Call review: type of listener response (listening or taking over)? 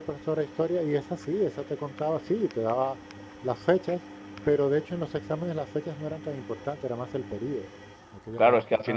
taking over